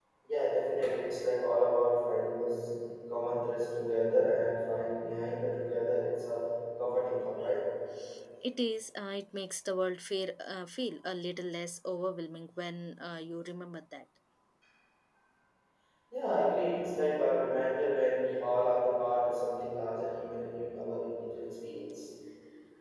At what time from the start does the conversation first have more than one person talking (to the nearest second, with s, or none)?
none